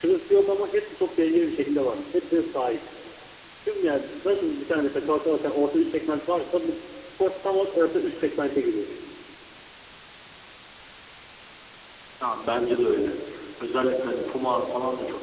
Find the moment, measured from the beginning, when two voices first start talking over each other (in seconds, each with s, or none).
none